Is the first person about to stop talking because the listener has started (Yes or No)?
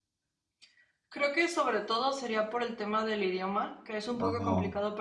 No